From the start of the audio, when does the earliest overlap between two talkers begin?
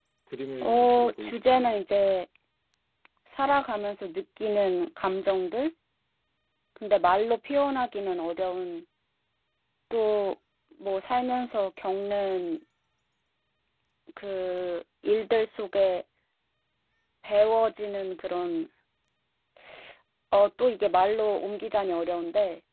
0.6 s

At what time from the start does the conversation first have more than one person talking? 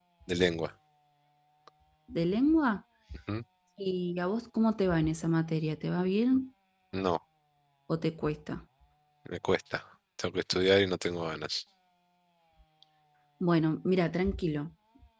none

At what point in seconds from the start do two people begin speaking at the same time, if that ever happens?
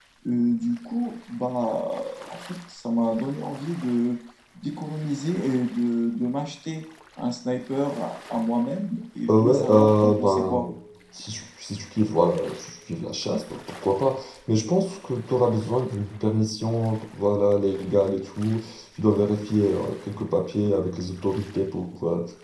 9.3 s

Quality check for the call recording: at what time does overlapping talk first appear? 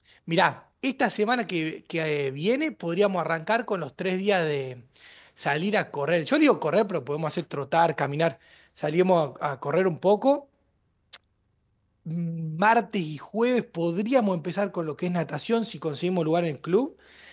none

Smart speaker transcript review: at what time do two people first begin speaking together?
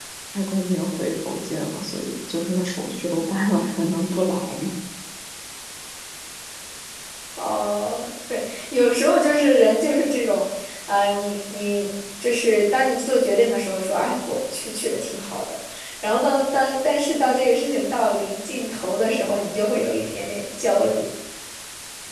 none

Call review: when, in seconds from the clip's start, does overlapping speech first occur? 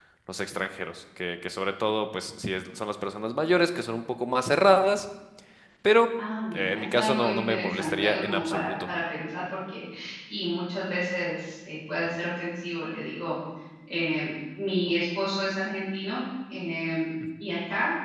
6.5 s

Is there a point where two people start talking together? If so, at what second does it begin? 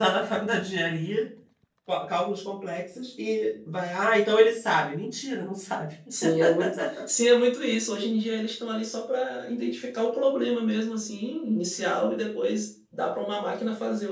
none

